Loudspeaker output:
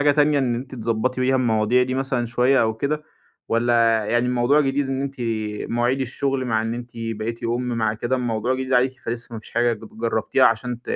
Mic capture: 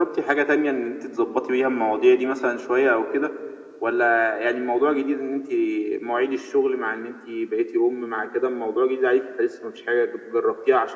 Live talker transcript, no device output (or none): none